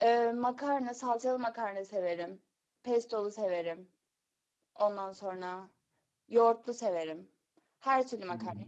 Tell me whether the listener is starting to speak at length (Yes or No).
No